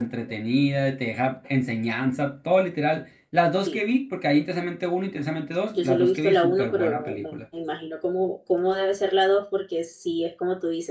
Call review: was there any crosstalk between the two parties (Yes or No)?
Yes